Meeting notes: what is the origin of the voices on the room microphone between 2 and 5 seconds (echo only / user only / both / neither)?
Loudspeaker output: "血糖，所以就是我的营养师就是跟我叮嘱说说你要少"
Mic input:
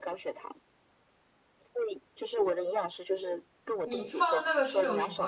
both